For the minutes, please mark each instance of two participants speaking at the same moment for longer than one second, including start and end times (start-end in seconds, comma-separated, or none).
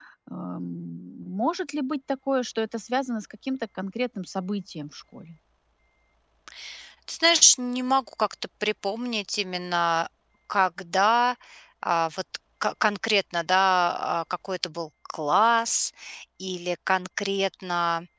none